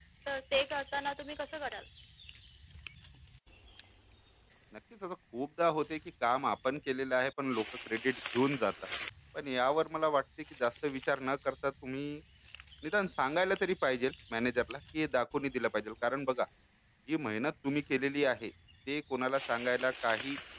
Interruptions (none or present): none